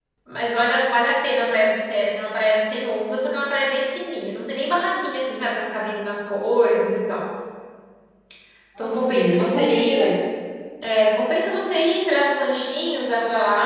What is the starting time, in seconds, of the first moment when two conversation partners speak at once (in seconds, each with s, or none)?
8.8 s